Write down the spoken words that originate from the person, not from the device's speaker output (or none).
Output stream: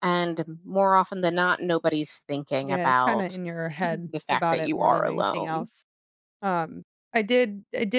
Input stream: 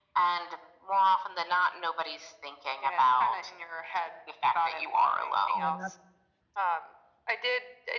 and that's